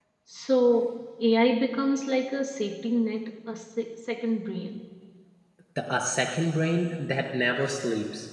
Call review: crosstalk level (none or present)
none